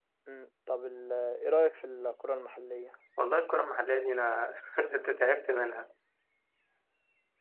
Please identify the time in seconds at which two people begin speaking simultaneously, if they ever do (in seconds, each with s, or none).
none